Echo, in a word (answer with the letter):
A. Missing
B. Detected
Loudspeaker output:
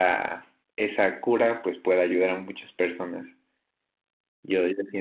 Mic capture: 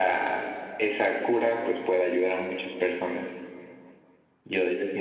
B